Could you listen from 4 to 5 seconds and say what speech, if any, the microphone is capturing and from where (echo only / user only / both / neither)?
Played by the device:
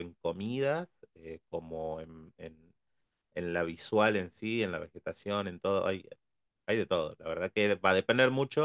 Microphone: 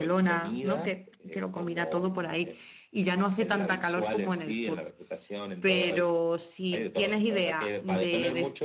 both